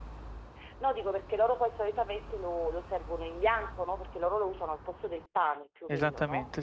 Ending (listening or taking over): taking over